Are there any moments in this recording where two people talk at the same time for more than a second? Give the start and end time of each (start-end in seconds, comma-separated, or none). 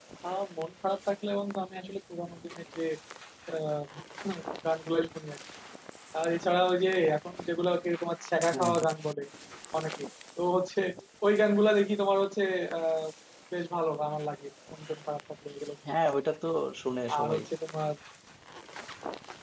none